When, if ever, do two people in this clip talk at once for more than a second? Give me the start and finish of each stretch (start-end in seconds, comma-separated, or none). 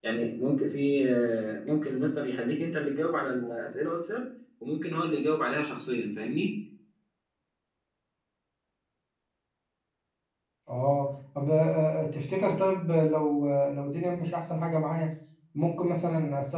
none